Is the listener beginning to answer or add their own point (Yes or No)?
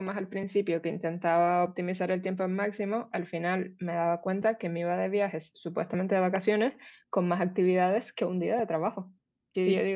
No